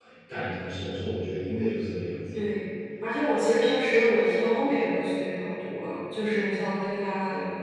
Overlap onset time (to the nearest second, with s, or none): none